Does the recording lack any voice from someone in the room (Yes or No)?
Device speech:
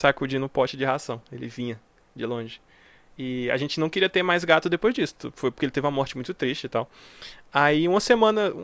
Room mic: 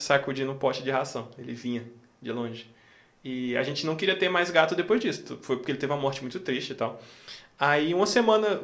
Yes